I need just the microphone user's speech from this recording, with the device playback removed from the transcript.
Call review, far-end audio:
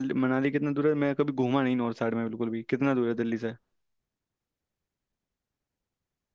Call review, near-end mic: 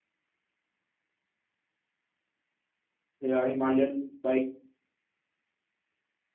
या हिमालयन बाइक

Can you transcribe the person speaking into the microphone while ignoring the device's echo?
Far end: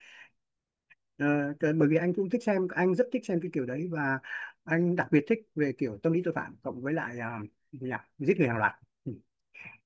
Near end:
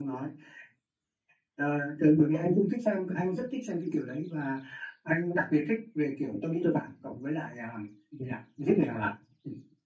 none

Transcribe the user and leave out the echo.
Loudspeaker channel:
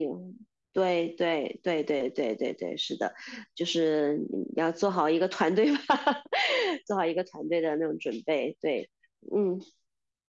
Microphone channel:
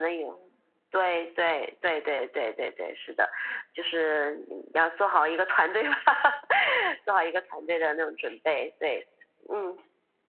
none

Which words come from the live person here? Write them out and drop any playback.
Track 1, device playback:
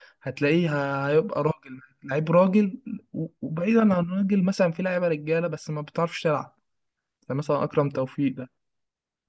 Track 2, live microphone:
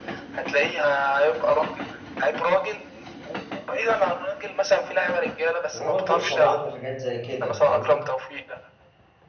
هو برضو اصابات وحاجات زي كده فاهمني

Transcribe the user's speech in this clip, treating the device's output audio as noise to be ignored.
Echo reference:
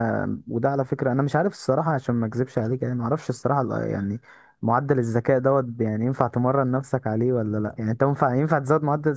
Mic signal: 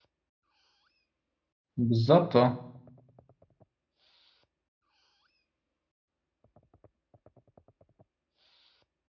بالظبط اه

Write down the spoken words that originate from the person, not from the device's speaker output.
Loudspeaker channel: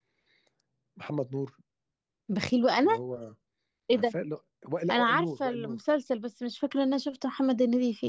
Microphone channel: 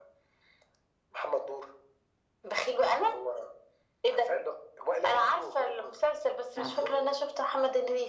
مش عارفه

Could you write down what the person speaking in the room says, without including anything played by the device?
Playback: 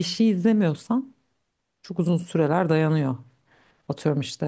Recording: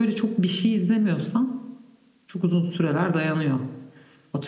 none

